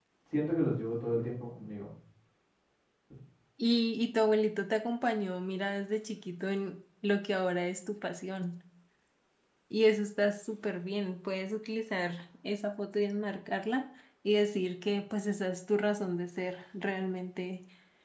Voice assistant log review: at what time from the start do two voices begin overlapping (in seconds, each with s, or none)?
none